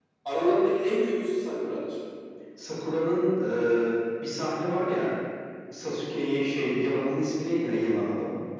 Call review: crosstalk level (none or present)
none